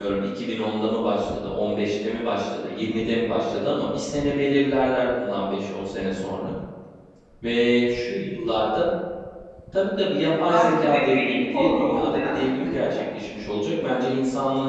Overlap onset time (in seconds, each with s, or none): 10.5 s